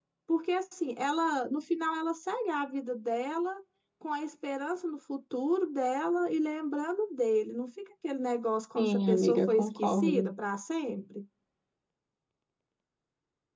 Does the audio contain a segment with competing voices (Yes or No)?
Yes